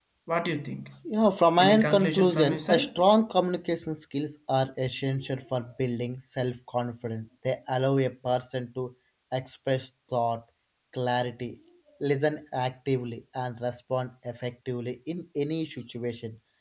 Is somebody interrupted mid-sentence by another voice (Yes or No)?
Yes